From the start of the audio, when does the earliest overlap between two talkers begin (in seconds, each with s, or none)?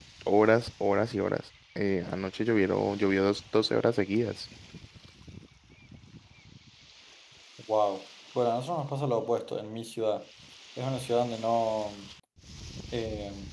none